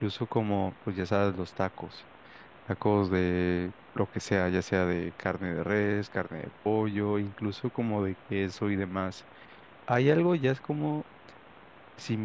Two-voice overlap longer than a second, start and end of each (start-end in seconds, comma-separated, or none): none